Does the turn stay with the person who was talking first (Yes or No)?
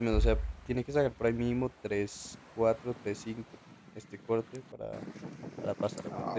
No